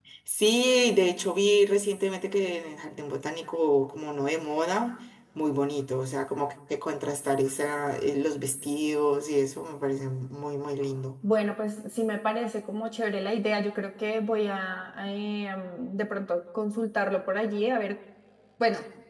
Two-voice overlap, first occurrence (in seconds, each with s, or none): none